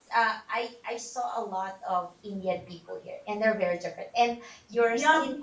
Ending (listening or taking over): taking over